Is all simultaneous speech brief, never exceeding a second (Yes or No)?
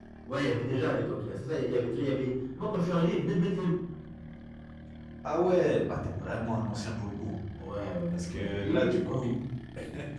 No